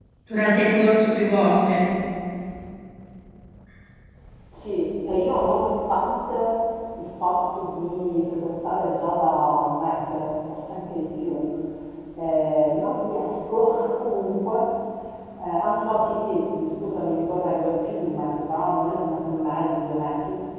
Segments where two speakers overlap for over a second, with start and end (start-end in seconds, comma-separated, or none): none